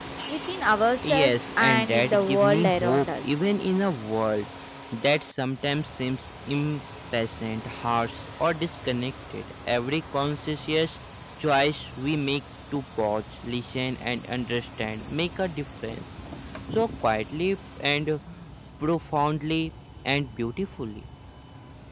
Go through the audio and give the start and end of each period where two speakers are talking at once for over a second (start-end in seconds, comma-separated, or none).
1.0-3.5